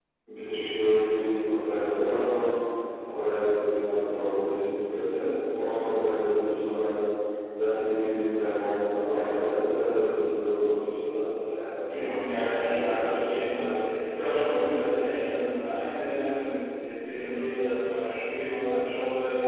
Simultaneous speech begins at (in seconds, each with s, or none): 11.9 s